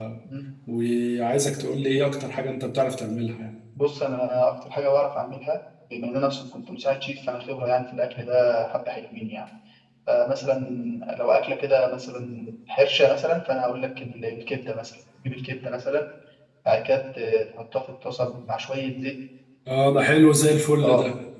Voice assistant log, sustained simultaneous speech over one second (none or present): none